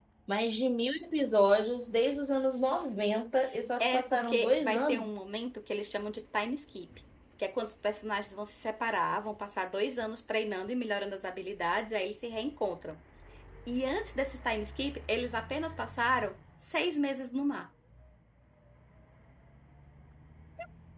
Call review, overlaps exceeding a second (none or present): present